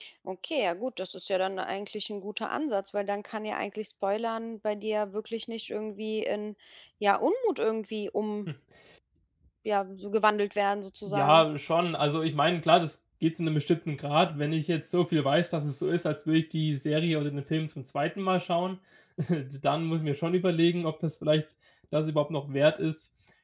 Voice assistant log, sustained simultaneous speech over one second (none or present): none